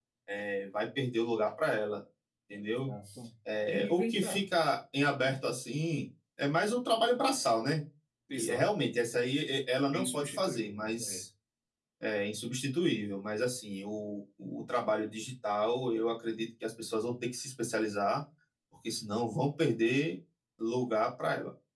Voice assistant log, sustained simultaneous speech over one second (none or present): present